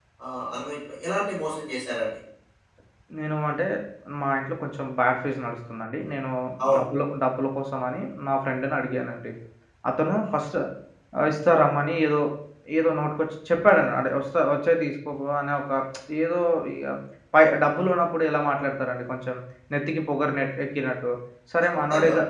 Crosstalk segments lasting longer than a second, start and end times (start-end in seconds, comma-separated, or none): none